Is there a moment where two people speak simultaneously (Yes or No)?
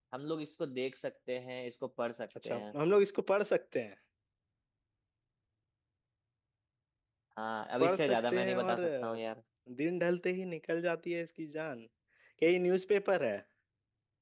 Yes